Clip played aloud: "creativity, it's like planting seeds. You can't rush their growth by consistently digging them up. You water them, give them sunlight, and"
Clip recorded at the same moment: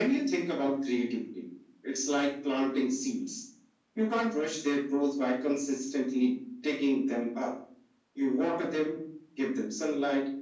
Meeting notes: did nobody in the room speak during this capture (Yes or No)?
Yes